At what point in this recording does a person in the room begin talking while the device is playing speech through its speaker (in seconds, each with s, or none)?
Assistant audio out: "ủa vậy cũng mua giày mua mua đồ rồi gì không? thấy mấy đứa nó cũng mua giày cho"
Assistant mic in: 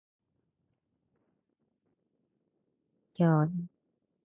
3.2 s